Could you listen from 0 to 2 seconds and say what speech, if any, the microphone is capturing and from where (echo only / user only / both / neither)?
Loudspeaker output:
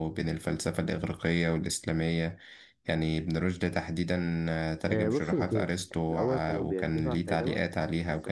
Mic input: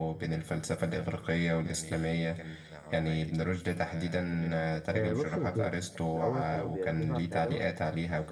both